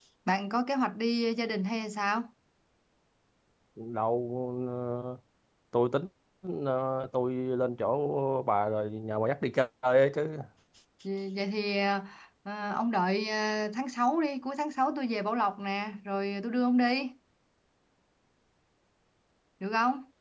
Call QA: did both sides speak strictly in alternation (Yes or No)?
Yes